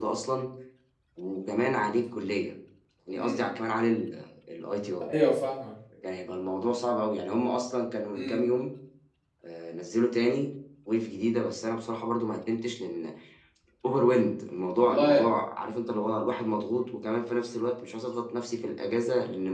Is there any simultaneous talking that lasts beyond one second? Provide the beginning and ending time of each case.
none

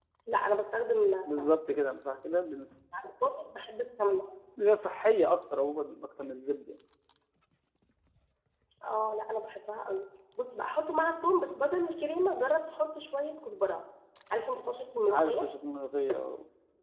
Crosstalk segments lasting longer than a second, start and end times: none

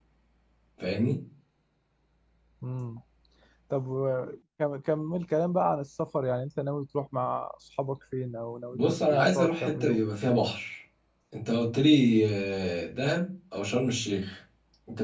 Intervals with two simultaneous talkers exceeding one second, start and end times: 8.7-10.0

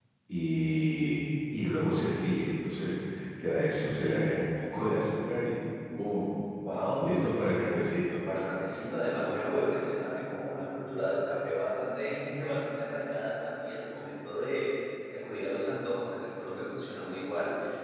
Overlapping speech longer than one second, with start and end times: none

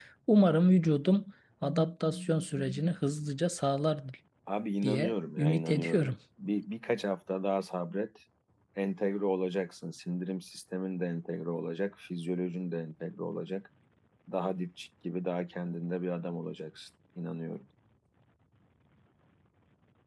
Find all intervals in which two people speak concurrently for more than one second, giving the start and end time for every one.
4.8-6.1

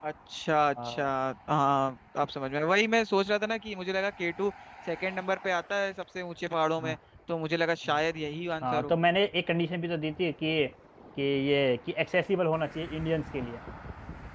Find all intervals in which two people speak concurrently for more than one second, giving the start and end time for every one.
none

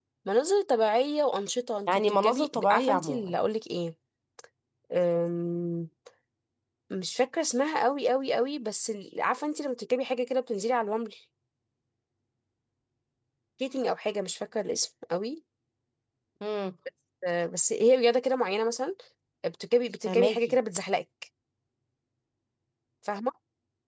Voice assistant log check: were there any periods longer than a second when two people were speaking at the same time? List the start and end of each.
1.9-3.3

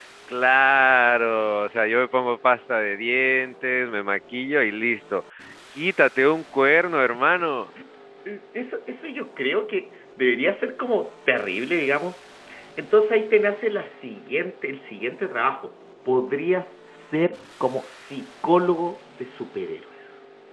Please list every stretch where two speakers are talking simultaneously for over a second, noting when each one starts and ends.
none

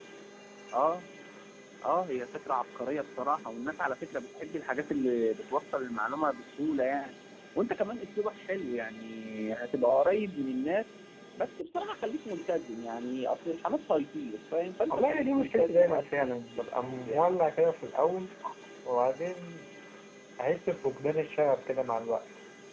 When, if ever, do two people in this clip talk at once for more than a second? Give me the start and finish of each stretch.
14.9-17.3

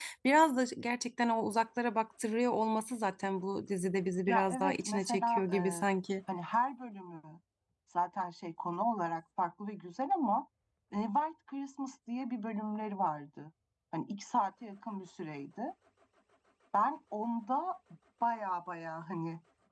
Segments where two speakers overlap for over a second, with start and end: 4.3-5.8

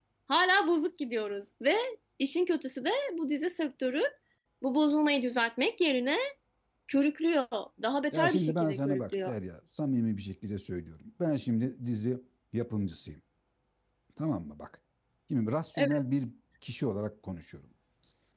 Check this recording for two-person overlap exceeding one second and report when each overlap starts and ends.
8.1-9.3

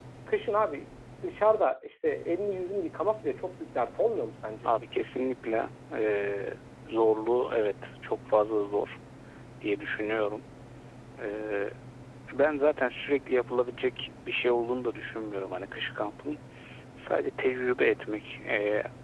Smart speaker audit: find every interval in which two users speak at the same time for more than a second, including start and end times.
none

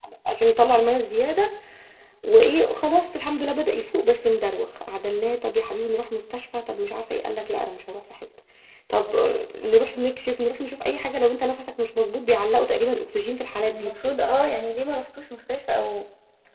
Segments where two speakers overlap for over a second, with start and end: none

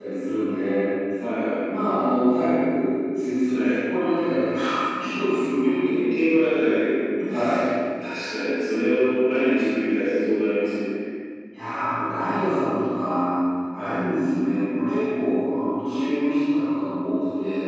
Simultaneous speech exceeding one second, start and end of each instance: none

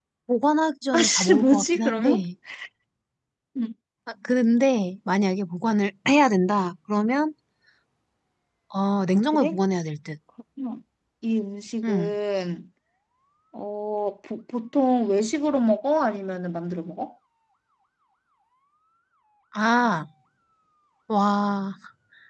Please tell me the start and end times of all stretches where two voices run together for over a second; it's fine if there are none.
0.9-2.2

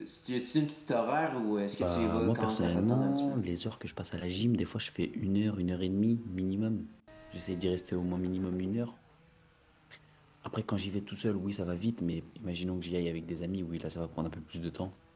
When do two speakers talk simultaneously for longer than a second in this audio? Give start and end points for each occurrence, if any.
1.8-3.4

